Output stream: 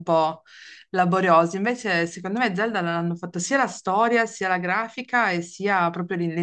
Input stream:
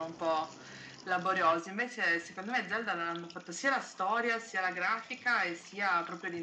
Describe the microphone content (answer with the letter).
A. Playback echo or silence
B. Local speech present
A